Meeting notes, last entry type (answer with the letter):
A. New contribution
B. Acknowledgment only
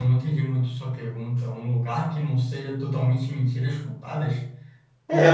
A